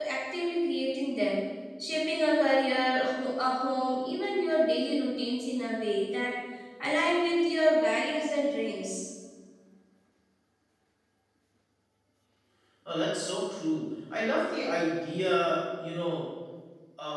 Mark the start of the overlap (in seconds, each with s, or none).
none